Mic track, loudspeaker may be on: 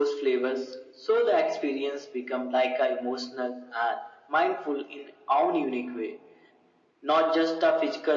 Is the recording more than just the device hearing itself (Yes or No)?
No